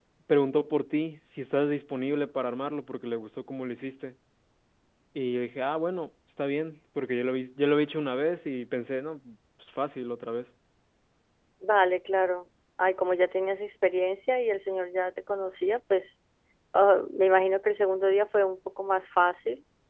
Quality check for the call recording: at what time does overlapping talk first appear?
none

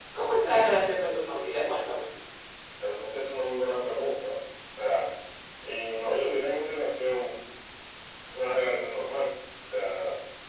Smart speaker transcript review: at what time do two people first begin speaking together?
none

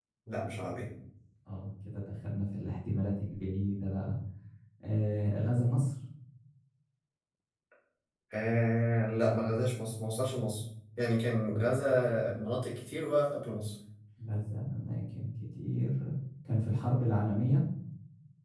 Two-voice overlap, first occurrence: none

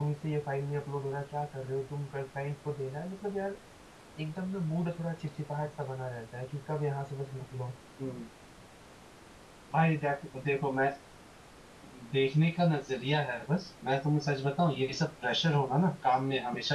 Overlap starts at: none

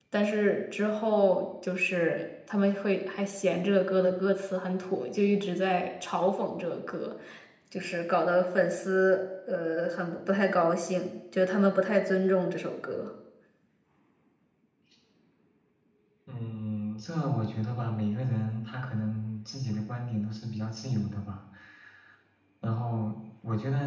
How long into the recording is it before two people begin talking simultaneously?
none

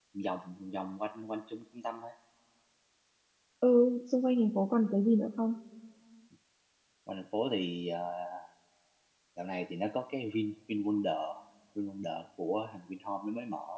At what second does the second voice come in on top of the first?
none

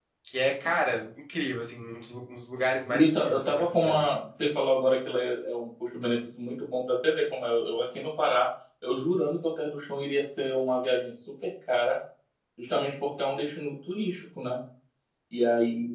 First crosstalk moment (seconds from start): 2.9 s

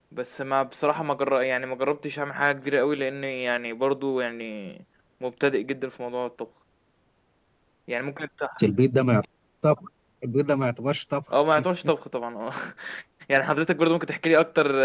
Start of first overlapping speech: none

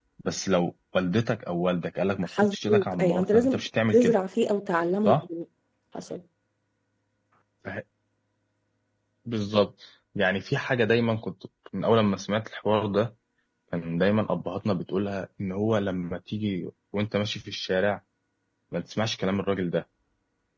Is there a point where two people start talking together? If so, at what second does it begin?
2.2 s

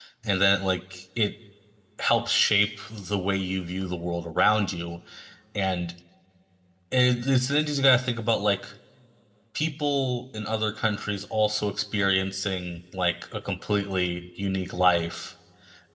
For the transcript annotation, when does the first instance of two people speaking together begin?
none

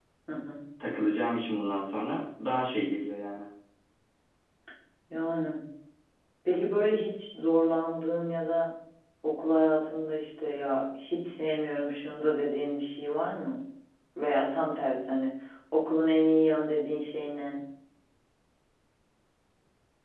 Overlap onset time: none

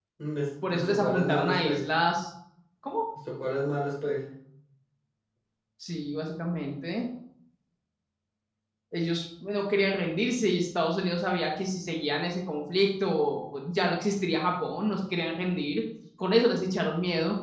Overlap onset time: 0.7 s

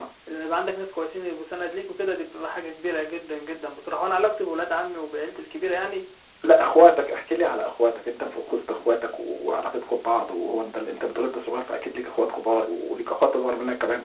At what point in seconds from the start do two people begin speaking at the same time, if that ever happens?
none

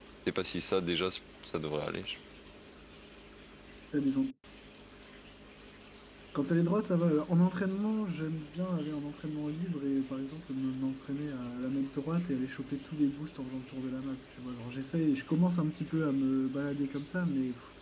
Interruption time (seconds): none

